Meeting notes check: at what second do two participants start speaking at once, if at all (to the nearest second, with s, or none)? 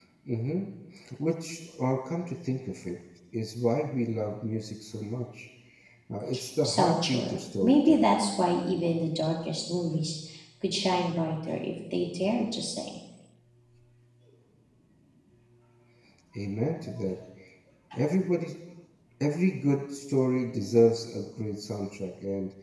7 s